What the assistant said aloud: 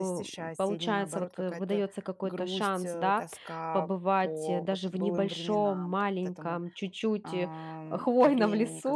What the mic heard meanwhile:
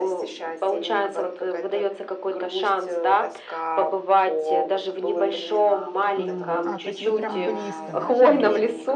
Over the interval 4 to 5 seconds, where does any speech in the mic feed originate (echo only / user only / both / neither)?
echo only